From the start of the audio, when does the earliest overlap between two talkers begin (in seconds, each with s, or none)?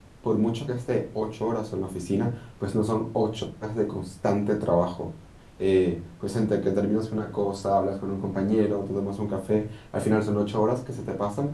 none